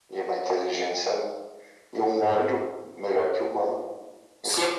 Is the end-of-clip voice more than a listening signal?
Yes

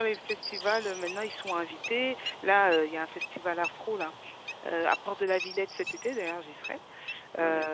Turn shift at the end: No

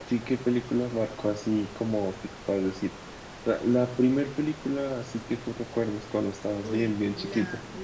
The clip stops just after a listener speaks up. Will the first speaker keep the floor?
No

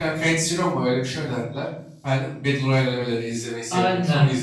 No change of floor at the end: No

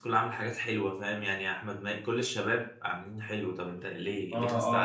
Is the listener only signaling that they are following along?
No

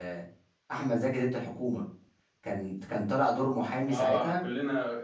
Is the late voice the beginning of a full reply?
Yes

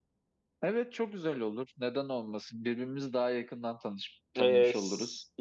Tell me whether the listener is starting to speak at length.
Yes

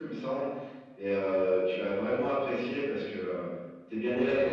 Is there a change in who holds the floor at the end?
Yes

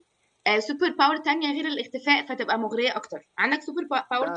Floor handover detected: Yes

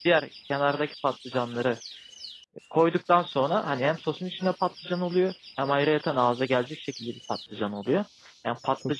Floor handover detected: No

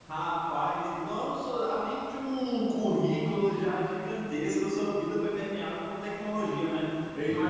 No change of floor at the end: Yes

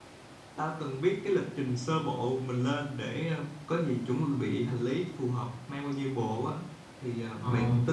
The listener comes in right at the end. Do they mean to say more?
No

